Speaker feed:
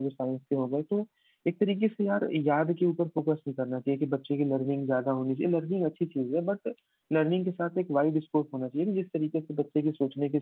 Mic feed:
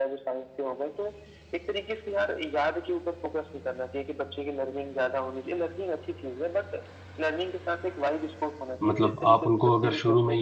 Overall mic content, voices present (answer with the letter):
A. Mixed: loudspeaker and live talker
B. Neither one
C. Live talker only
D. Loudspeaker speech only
A